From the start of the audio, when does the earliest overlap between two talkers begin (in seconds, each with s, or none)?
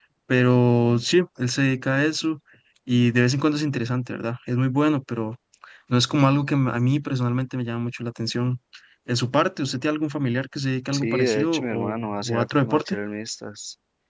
10.9 s